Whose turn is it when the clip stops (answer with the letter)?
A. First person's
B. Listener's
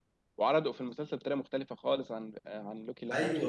B